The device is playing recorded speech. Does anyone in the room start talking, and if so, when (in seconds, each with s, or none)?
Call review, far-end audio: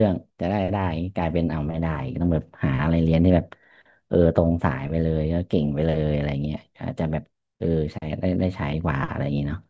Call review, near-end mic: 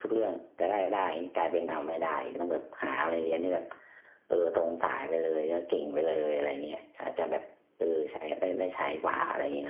none